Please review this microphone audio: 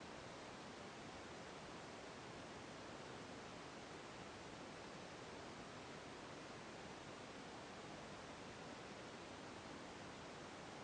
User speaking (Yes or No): No